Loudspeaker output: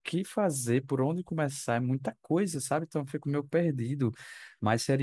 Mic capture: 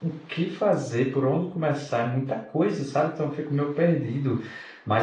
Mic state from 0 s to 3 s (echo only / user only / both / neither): echo only